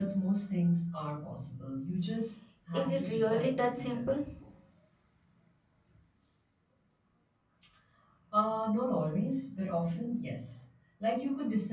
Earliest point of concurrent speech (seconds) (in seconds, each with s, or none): 2.7 s